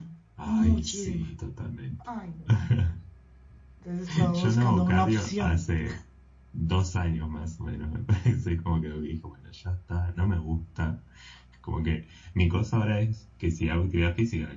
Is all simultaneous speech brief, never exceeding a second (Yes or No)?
No